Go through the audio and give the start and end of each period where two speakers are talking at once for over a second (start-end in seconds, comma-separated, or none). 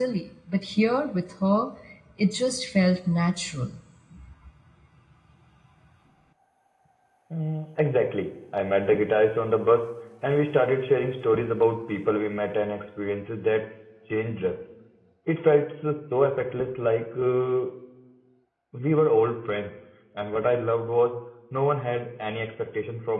none